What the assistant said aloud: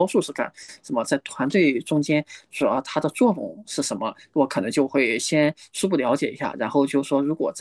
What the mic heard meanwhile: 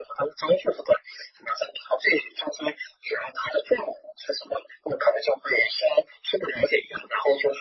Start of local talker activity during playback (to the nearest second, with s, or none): none